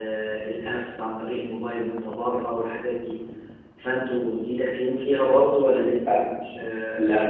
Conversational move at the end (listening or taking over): taking over